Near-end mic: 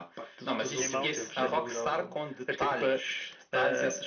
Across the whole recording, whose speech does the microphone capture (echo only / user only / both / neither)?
both